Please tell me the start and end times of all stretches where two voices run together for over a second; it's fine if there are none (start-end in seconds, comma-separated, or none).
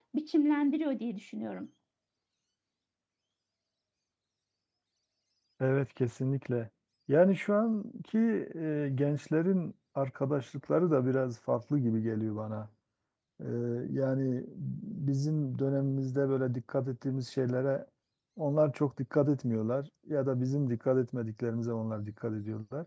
none